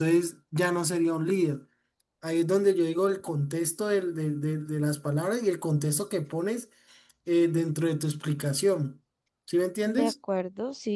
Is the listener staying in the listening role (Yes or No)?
No